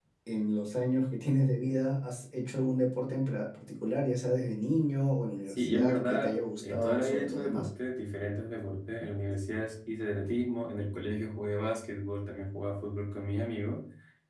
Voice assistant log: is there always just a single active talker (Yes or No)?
No